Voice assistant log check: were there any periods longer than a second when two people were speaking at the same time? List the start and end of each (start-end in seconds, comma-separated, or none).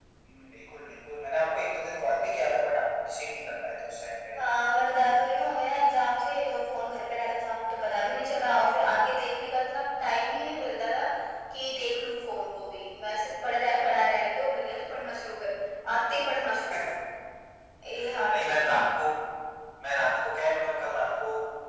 none